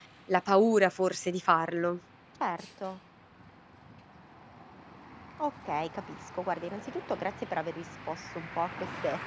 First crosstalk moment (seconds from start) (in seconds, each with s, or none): none